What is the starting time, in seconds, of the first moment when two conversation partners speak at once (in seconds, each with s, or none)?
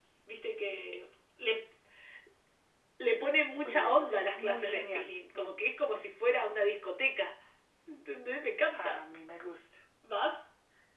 3.6 s